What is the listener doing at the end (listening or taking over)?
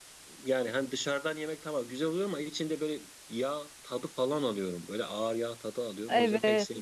taking over